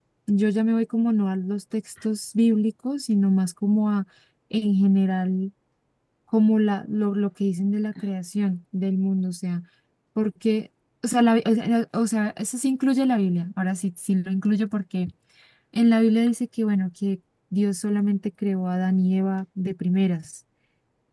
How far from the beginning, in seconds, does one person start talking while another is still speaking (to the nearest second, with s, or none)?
none